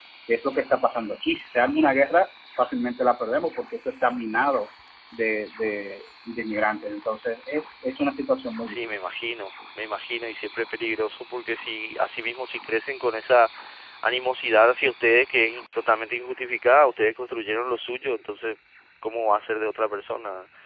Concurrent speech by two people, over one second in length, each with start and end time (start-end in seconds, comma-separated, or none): none